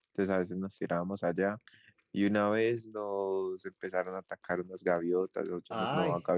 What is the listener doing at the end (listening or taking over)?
listening